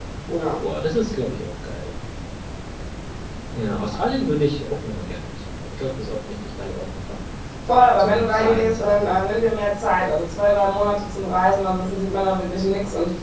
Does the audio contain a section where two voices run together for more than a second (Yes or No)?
Yes